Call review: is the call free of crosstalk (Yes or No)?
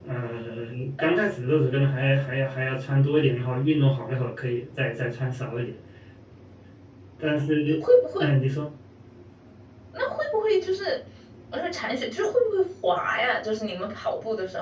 Yes